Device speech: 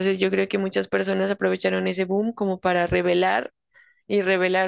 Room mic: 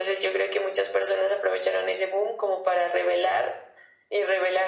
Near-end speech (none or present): none